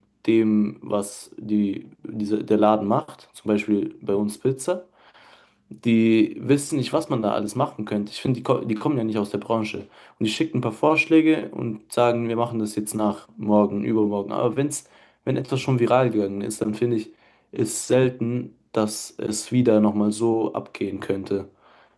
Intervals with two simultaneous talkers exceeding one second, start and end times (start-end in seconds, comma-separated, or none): none